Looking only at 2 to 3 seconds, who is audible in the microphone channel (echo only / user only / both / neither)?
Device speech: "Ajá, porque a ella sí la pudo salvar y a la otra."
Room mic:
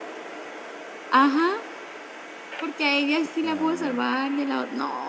echo only